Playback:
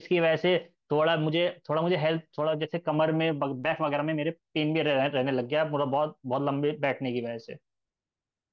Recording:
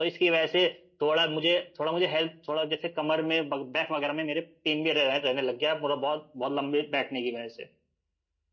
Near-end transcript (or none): none